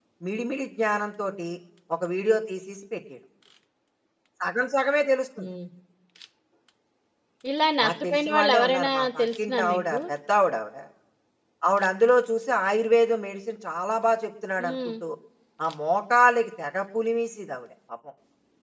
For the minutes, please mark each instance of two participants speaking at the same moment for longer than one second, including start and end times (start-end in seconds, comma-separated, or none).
7.8-10.0